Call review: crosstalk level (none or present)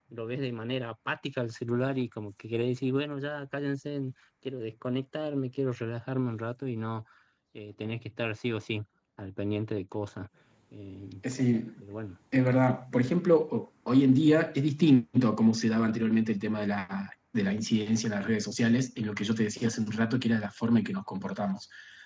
none